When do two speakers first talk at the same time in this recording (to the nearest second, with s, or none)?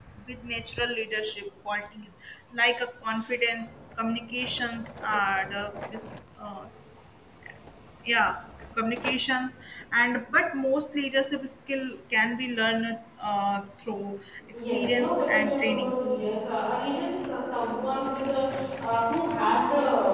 15 s